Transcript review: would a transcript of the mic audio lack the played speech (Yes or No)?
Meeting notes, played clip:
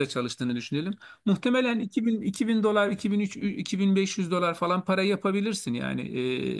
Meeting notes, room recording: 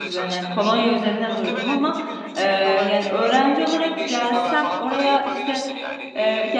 No